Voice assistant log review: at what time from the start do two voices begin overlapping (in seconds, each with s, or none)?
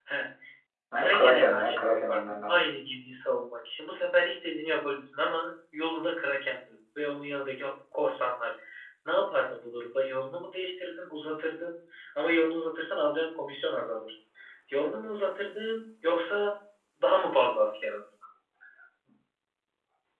1.0 s